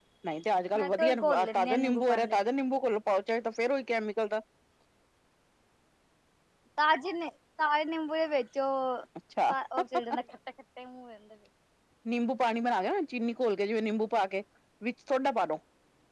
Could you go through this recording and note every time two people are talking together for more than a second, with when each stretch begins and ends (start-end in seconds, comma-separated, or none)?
0.8-2.4